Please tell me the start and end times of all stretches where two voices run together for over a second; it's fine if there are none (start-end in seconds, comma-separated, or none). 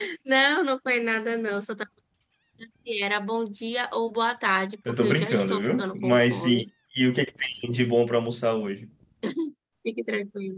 4.9-6.6